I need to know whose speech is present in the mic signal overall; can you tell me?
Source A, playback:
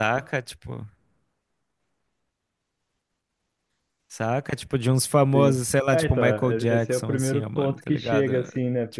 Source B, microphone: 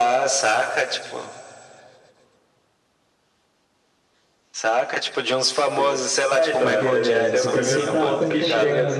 both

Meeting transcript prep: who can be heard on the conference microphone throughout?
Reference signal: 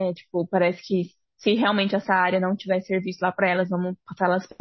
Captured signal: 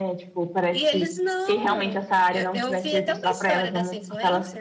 both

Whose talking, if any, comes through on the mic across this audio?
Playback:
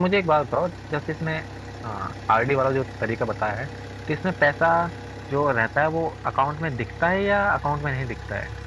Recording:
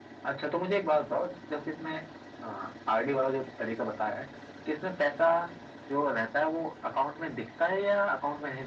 echo only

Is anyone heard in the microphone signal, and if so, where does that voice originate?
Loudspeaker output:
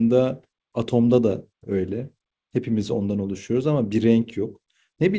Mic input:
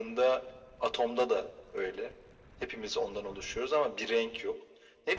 echo only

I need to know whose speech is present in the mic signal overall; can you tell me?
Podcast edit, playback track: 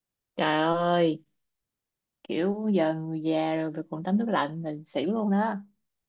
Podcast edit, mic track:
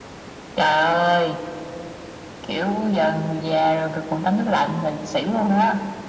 echo only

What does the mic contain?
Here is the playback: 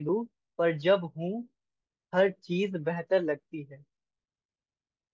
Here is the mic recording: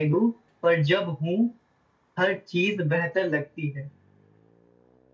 echo only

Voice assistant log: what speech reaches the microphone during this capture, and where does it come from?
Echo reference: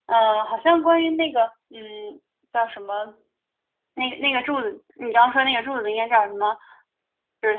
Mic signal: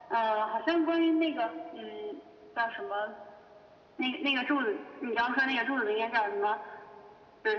echo only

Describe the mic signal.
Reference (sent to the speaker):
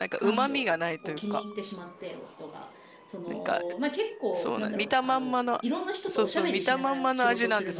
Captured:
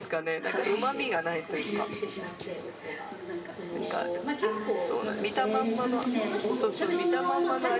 both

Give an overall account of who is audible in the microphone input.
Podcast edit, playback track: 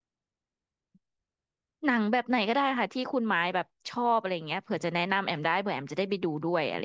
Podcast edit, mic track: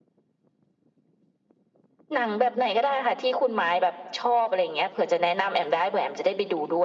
echo only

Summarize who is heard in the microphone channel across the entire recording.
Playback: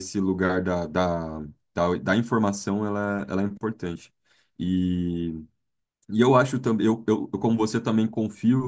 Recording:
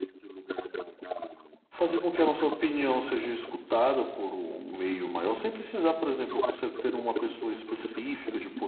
both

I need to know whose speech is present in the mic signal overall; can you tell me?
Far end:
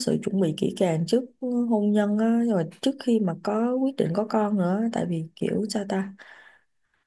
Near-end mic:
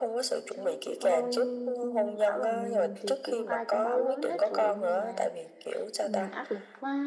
both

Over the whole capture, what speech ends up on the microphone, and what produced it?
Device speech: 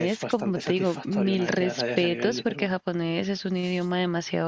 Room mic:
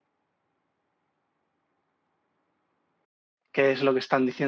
user only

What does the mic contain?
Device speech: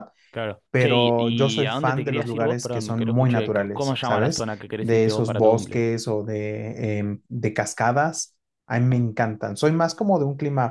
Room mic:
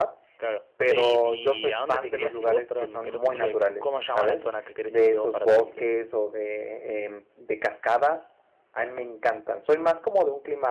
echo only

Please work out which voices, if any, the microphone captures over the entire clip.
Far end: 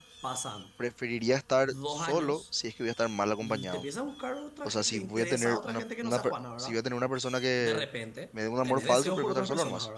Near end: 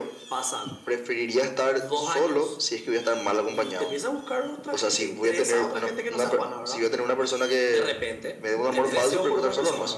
echo only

